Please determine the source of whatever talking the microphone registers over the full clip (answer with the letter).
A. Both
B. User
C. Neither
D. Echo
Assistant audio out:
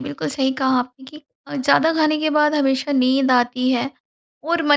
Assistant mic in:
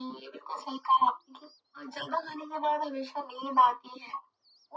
D